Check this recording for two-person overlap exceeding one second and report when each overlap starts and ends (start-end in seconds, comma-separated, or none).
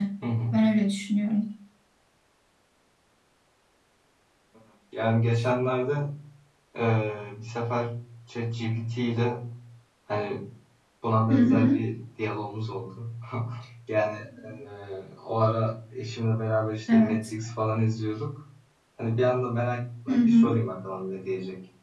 none